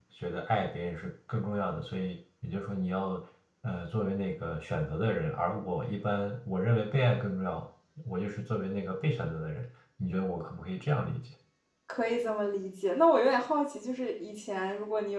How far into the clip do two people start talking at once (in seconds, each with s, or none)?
none